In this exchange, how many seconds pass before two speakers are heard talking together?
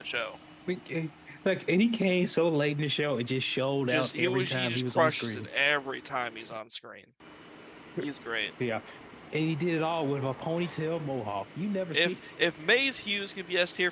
3.9 s

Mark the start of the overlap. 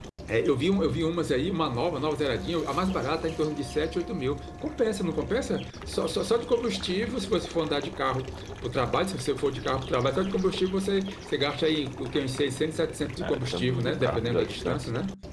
13.2 s

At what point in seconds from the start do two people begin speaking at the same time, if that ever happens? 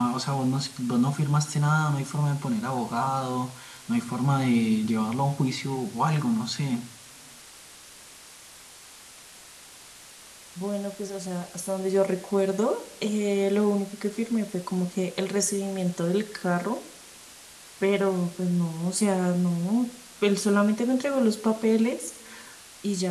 none

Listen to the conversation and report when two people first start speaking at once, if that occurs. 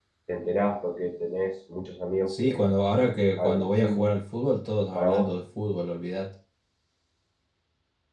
2.3 s

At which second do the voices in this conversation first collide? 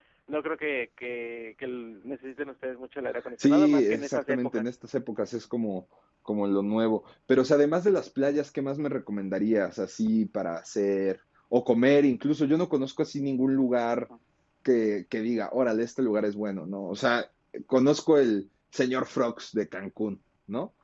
3.4 s

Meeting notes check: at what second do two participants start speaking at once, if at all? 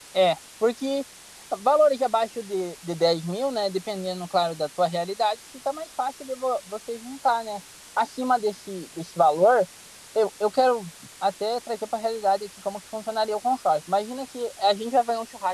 none

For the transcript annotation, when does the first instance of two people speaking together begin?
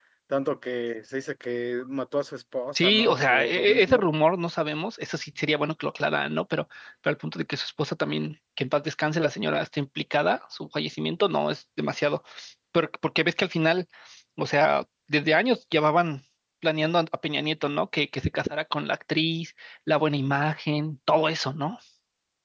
2.8 s

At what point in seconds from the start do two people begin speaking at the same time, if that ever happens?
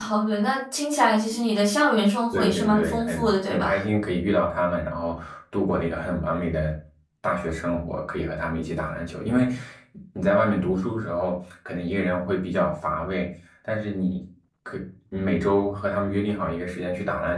2.3 s

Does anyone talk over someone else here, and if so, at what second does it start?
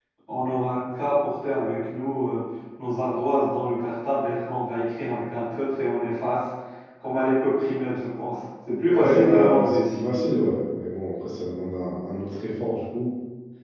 8.9 s

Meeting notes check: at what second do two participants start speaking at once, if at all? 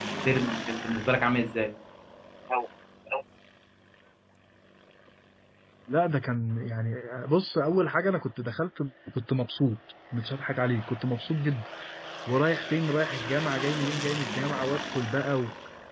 none

